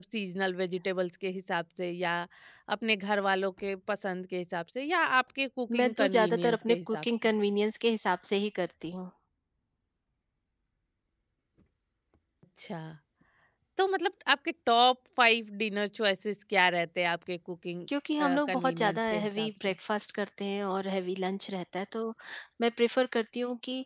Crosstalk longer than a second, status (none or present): present